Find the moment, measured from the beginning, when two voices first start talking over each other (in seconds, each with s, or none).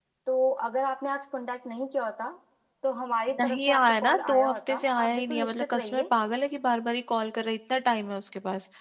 3.4 s